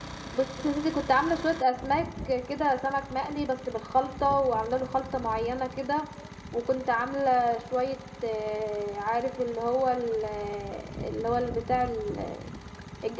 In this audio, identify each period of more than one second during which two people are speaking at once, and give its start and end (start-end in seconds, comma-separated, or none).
none